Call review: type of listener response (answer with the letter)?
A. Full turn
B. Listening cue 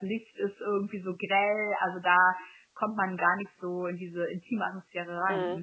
A